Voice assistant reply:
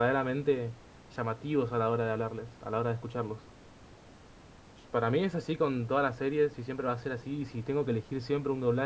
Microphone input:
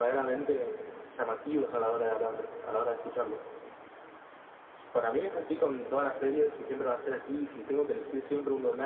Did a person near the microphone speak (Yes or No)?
No